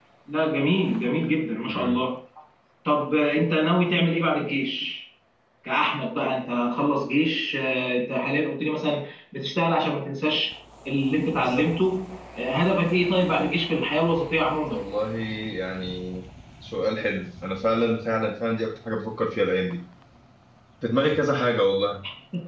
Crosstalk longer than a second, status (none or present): none